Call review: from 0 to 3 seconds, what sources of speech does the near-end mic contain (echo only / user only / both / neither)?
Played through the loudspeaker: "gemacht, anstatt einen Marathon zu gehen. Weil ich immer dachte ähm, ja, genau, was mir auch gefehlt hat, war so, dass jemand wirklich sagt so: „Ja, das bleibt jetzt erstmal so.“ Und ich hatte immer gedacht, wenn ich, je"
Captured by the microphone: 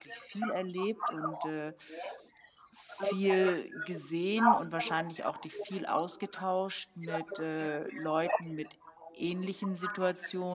both